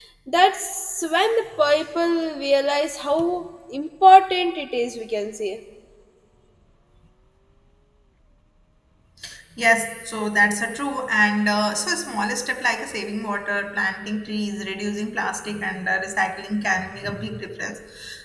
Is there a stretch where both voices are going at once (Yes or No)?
No